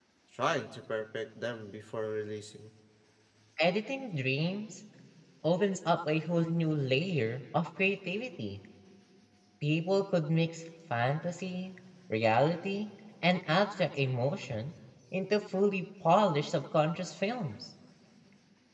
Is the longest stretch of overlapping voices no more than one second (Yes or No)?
Yes